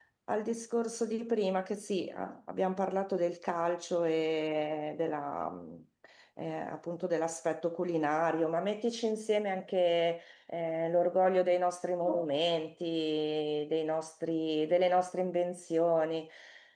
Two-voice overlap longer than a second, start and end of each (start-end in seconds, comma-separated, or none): none